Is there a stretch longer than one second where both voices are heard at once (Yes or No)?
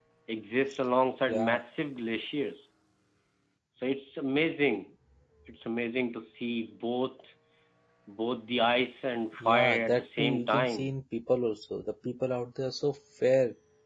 Yes